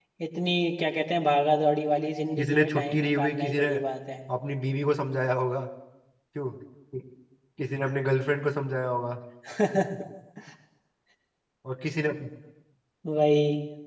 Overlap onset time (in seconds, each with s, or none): 2.4 s